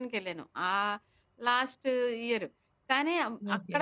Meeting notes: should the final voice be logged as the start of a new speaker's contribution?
No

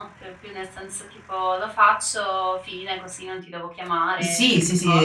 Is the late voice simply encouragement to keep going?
No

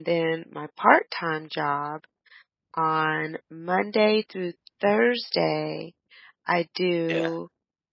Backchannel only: Yes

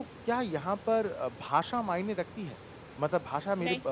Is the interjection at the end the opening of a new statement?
No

